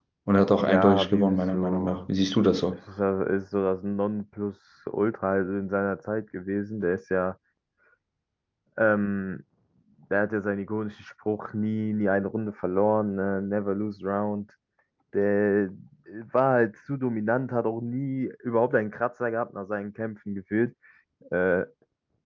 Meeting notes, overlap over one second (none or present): present